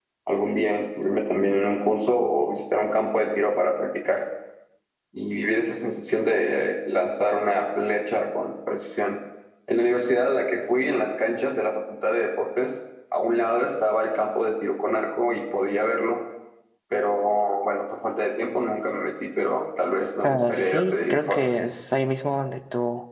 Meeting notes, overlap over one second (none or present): present